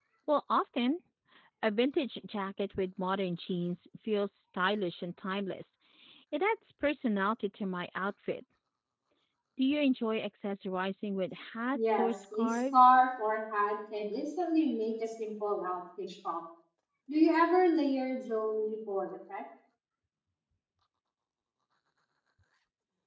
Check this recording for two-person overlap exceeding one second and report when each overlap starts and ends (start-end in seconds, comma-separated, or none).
11.7-12.9